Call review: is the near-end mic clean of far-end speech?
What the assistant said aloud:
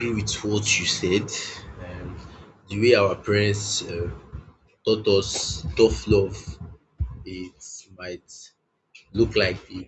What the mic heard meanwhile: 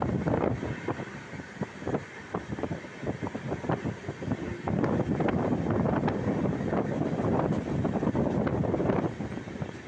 Yes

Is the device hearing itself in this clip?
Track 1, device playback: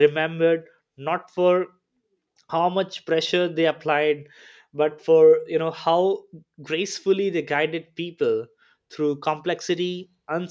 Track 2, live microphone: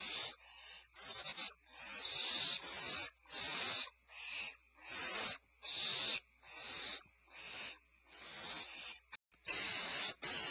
No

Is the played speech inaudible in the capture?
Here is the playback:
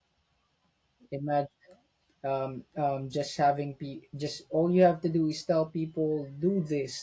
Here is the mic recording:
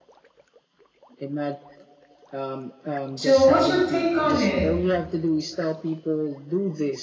No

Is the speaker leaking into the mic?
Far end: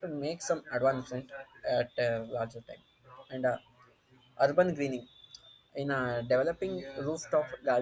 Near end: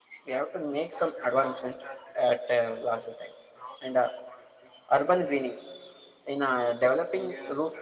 Yes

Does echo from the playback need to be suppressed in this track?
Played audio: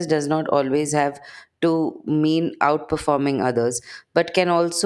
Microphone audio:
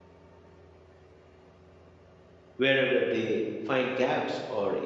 No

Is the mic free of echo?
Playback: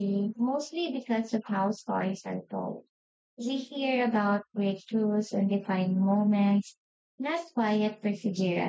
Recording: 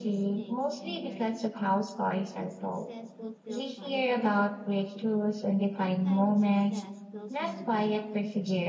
No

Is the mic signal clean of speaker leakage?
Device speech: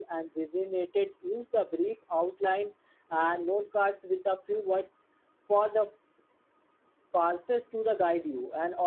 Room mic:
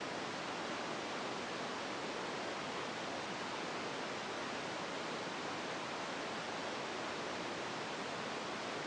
Yes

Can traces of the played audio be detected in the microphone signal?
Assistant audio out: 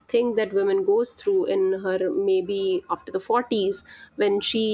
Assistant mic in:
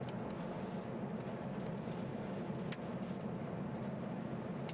No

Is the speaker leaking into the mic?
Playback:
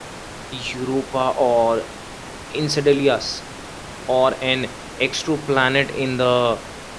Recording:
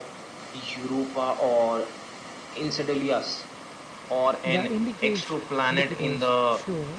Yes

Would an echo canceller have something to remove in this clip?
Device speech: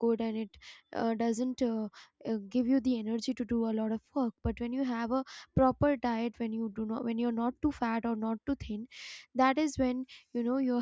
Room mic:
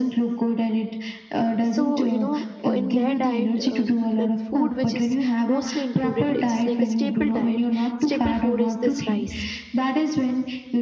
Yes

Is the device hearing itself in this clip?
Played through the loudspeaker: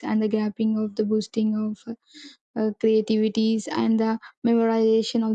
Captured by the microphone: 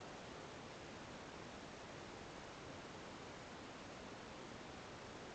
No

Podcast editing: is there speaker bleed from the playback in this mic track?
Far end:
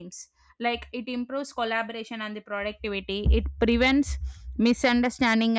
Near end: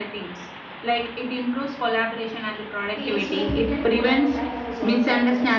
Yes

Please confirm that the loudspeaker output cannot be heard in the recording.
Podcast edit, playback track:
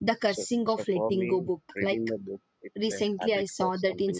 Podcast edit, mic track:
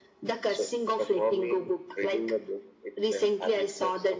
No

